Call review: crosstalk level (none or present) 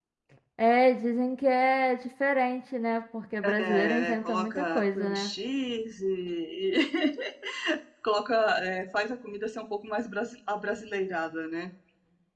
present